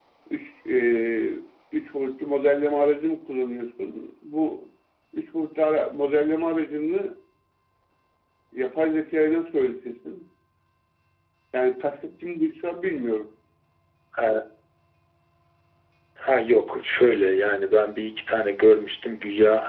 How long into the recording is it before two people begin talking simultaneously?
none

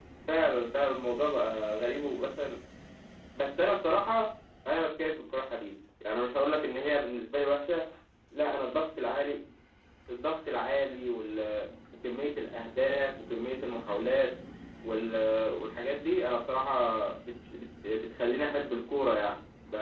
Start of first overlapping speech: none

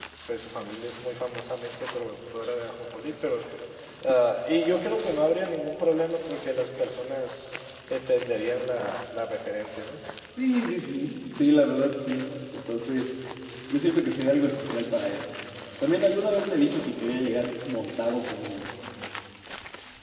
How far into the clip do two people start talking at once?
none

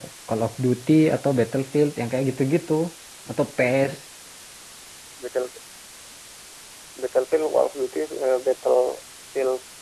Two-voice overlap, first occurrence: none

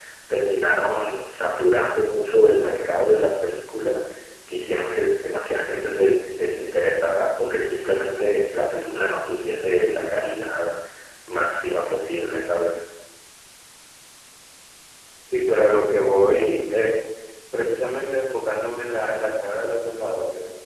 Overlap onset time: none

